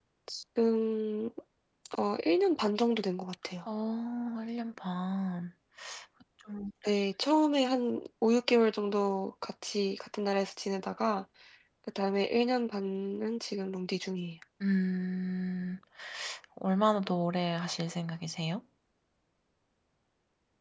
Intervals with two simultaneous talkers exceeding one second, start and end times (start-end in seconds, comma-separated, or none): none